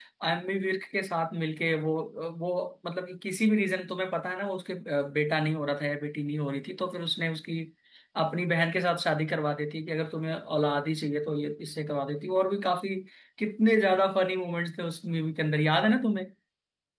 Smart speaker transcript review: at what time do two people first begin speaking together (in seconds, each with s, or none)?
none